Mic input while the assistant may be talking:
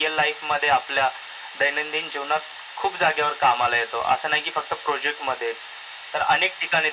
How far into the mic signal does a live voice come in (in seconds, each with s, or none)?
none